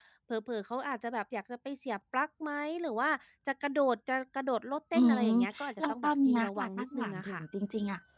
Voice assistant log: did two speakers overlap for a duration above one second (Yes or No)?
Yes